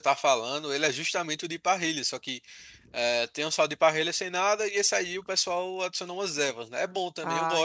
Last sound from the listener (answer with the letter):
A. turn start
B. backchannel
A